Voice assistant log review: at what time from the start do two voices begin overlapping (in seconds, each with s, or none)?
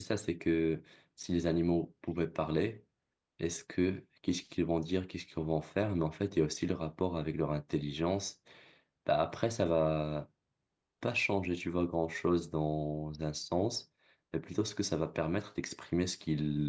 none